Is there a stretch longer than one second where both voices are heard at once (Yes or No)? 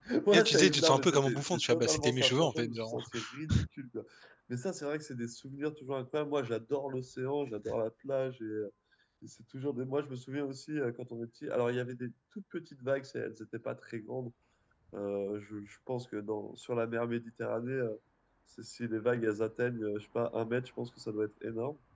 Yes